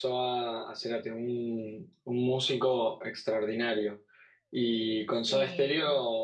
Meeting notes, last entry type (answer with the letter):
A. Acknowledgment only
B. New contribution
A